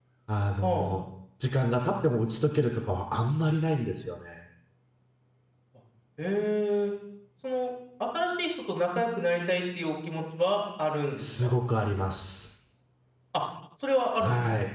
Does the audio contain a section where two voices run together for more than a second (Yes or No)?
No